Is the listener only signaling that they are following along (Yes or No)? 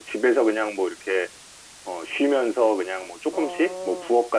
Yes